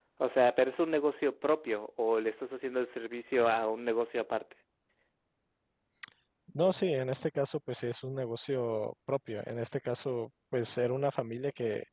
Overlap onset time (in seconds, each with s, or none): none